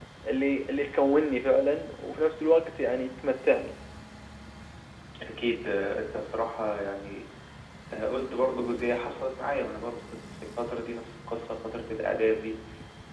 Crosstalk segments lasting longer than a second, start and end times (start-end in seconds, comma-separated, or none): none